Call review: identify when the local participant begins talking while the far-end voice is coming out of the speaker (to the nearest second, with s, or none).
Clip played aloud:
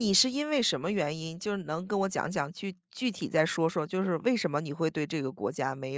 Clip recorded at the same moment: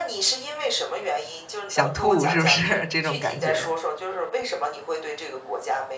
2 s